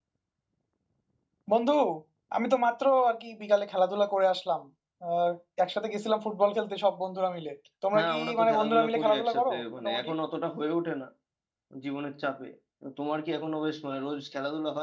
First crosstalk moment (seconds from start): 8 s

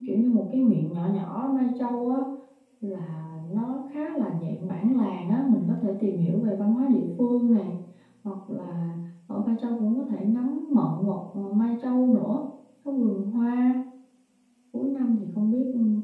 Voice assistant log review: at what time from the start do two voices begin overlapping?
none

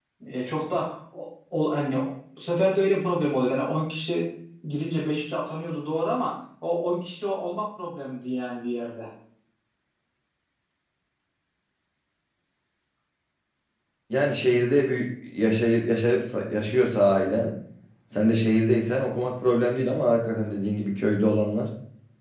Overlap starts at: none

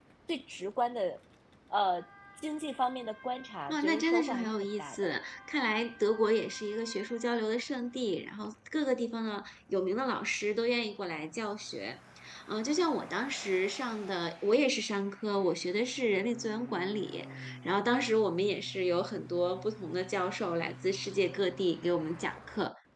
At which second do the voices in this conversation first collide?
4 s

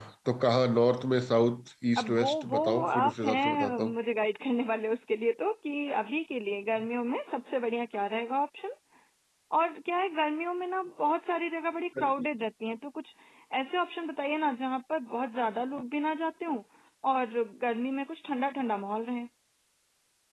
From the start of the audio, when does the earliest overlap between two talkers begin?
2 s

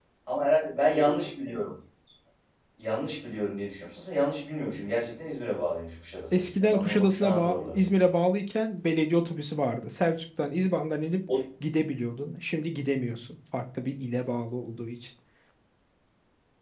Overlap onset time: 6 s

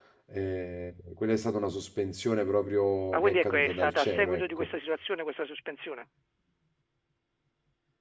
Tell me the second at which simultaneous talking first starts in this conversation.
3 s

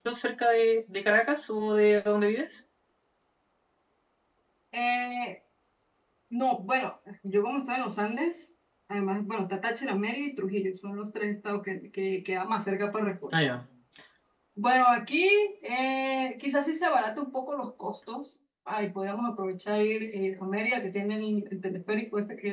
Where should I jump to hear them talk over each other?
none

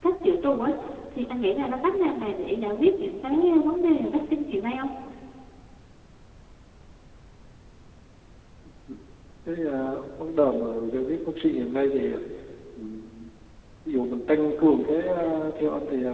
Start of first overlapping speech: none

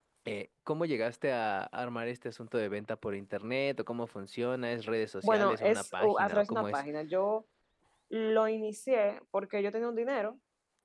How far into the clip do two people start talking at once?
5 s

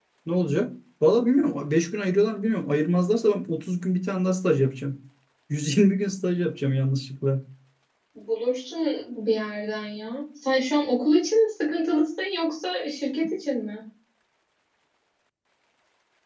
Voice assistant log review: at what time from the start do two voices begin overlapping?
none

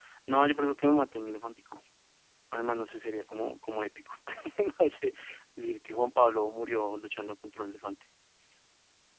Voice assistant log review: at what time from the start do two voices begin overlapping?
none

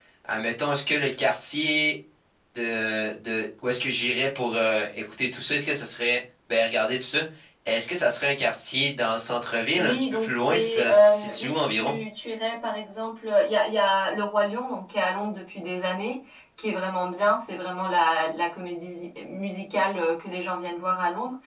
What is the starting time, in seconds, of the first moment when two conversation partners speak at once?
10 s

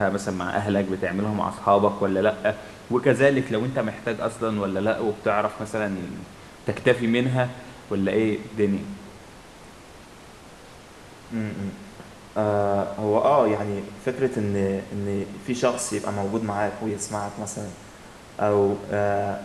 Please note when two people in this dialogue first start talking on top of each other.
none

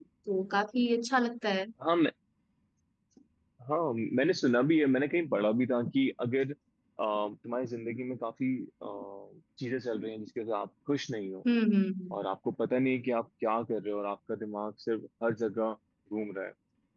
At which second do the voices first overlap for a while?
none

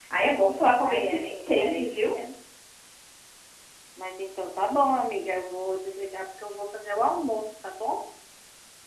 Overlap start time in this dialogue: 1 s

